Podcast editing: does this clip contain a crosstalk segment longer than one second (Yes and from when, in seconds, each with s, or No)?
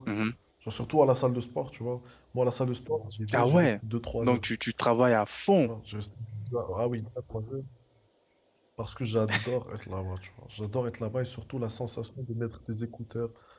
No